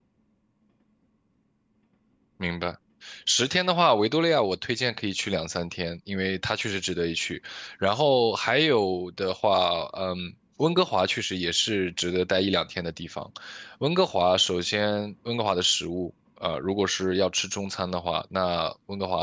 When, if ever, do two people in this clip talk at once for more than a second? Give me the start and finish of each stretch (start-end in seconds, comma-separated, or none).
none